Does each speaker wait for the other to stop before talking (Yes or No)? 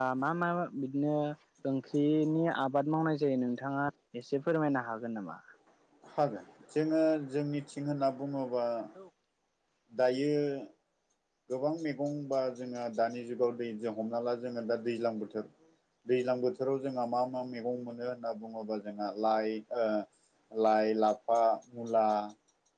Yes